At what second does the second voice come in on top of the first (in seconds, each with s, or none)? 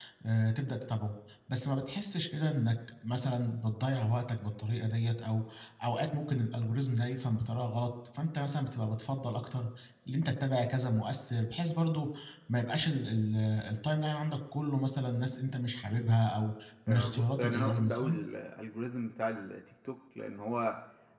16.9 s